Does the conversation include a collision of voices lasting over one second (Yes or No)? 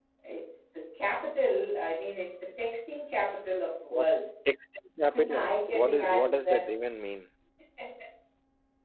Yes